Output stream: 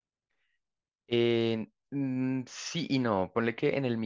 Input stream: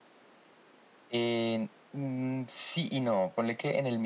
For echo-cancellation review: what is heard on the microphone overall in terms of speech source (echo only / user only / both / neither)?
echo only